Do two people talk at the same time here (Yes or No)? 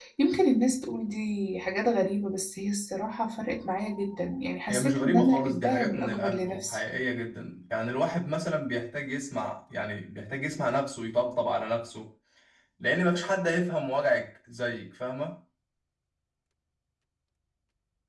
Yes